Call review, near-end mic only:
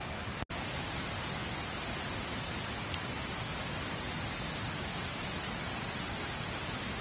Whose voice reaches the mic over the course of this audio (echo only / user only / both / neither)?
neither